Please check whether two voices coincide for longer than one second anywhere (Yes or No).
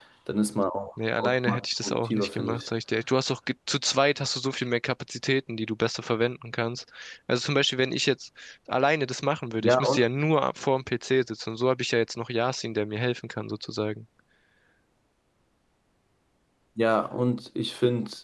Yes